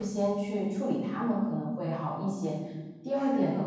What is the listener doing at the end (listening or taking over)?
listening